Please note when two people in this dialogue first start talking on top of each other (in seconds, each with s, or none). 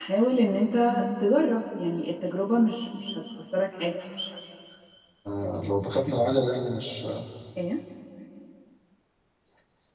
none